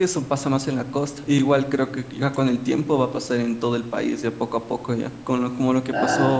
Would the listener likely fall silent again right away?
Yes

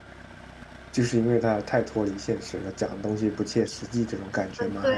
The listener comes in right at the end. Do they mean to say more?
Yes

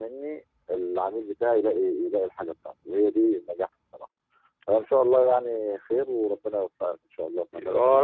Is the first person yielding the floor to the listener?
Yes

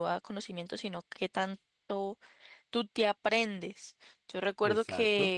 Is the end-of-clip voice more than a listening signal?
No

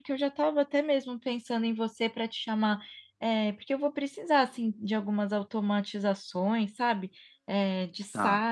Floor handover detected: No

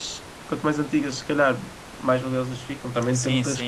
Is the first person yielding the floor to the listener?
Yes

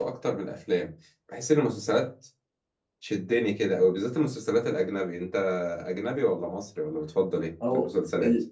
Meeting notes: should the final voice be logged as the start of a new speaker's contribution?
Yes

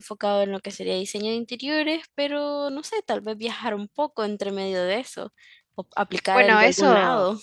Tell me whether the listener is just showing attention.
No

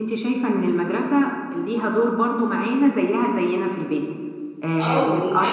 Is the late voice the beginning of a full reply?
Yes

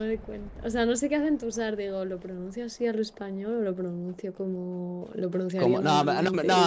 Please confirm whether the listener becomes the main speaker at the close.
Yes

